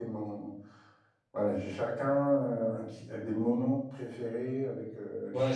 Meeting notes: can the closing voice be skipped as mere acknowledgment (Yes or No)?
No